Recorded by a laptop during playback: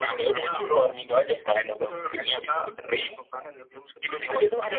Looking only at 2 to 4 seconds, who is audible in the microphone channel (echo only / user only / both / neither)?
echo only